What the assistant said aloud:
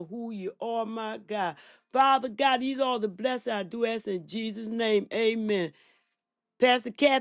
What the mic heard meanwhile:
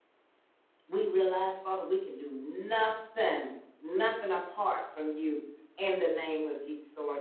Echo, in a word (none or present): none